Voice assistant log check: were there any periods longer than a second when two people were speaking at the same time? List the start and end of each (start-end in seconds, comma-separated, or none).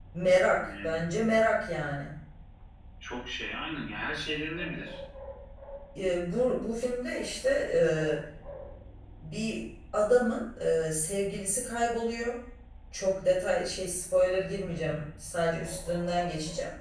none